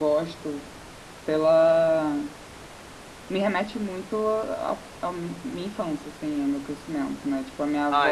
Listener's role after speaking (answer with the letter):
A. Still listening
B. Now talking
A